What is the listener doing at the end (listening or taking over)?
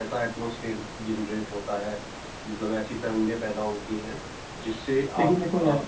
taking over